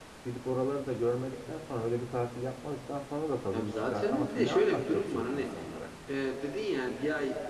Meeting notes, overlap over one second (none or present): present